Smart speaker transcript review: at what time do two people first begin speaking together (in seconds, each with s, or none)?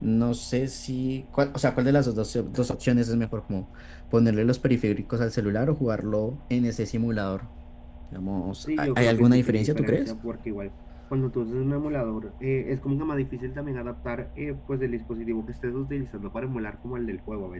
8.8 s